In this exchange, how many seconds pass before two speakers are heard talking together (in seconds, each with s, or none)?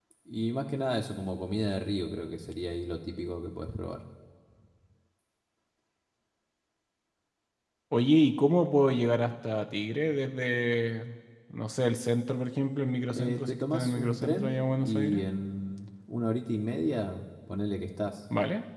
13.1 s